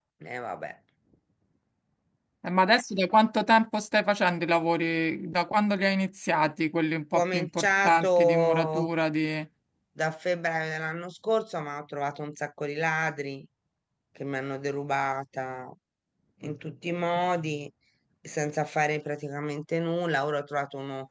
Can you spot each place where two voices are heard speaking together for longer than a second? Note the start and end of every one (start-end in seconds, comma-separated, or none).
7.1-8.9